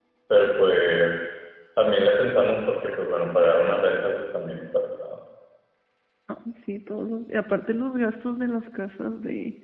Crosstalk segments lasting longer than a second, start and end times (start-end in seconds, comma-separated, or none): none